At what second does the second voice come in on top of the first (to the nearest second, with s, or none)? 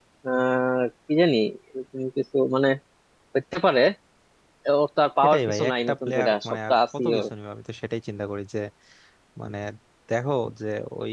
5 s